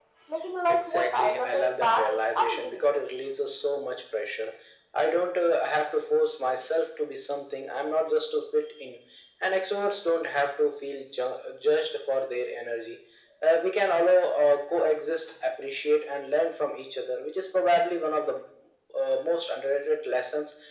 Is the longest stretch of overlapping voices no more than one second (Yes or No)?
No